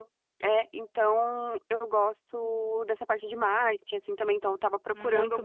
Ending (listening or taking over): listening